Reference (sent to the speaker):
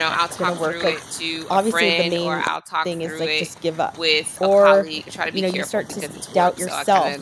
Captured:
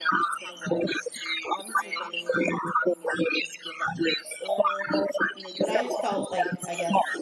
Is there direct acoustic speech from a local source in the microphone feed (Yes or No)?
Yes